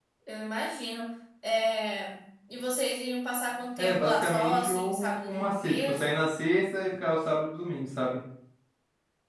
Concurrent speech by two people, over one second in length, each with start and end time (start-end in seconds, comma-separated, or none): 3.8-6.3